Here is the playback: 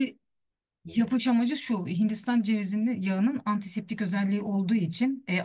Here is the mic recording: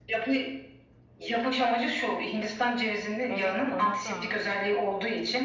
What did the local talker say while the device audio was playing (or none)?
Evet bana da.